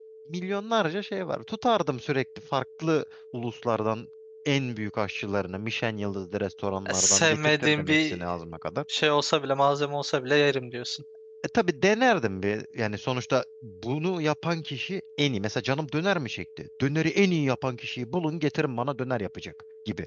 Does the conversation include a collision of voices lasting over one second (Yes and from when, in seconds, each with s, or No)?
Yes, from 6.9 s